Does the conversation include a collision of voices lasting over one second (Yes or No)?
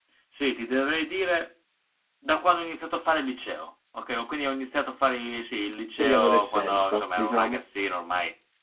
Yes